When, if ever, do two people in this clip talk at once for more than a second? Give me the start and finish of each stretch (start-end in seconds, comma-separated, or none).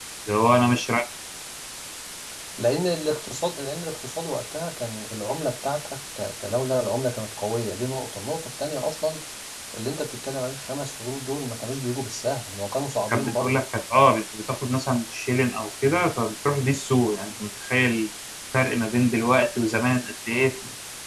none